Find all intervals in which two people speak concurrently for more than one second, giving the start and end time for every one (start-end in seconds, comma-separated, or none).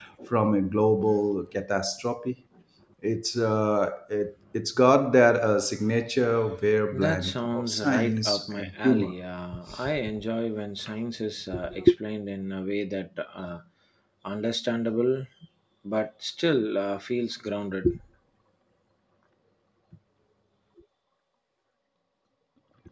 6.9-9.1